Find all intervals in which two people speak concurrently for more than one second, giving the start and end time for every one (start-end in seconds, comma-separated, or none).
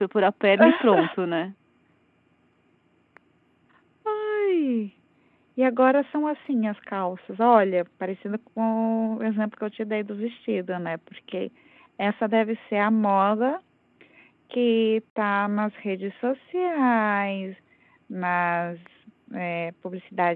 none